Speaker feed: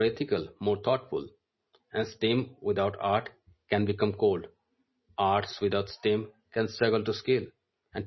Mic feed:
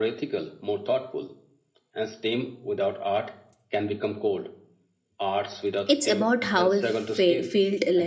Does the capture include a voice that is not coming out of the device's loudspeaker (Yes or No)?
Yes